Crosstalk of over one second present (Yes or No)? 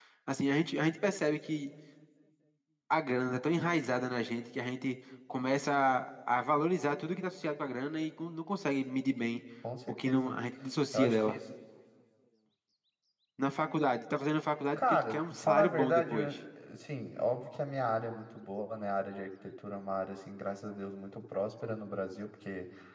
Yes